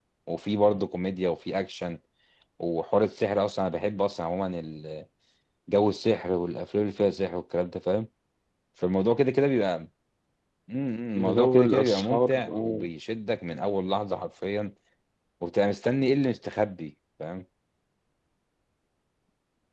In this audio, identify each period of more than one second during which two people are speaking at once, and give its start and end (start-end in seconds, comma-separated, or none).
11.2-12.8